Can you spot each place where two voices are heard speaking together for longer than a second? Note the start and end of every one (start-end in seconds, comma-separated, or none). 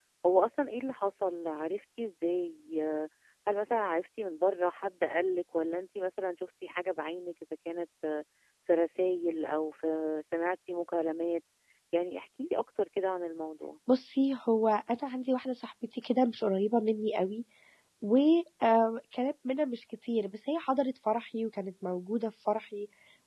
none